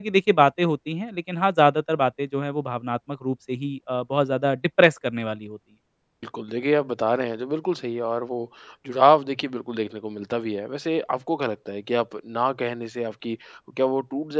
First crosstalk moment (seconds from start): none

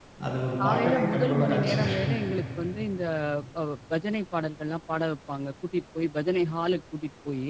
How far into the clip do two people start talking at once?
0.6 s

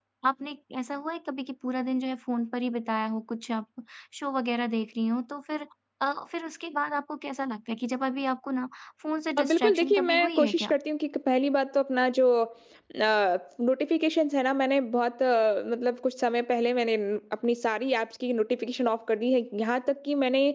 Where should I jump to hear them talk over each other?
9.4 s

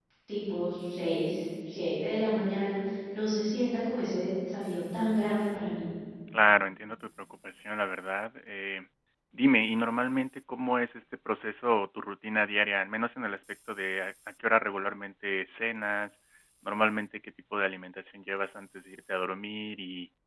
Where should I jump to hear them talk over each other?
none

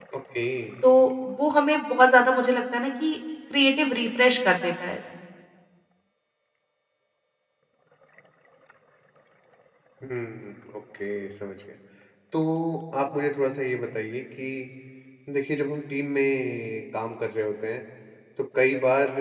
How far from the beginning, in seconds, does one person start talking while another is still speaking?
none

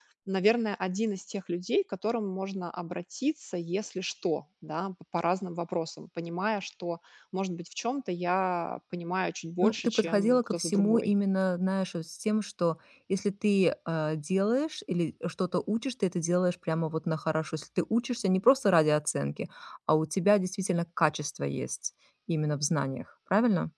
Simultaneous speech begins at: 9.6 s

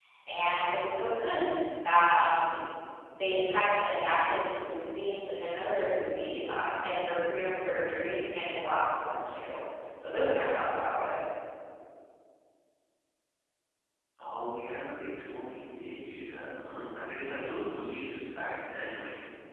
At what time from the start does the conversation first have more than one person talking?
none

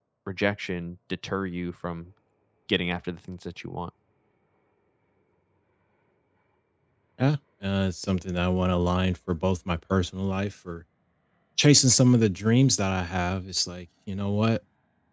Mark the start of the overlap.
none

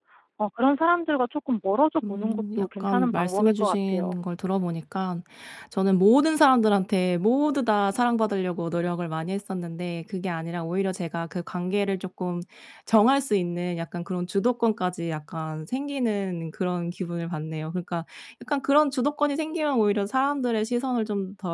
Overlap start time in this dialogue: 2.0 s

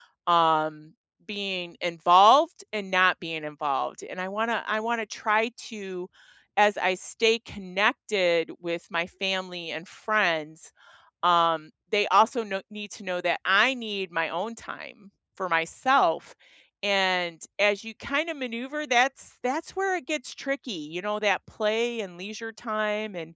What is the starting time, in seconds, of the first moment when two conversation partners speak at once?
none

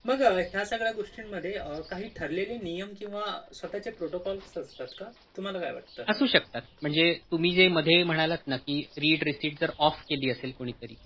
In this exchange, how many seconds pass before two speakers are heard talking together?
none

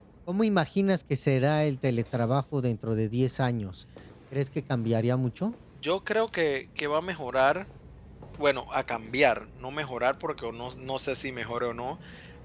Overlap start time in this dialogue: none

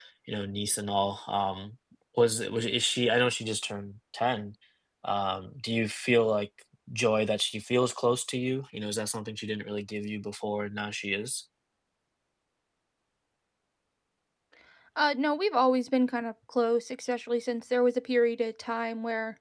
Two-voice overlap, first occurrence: none

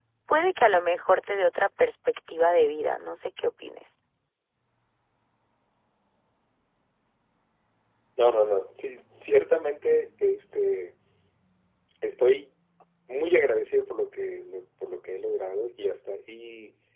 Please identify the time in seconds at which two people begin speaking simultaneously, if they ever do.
none

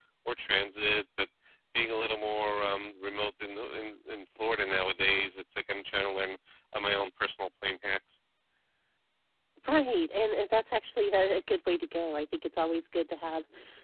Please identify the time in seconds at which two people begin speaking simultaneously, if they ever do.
none

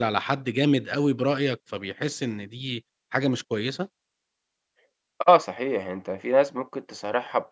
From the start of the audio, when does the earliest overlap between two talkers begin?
none

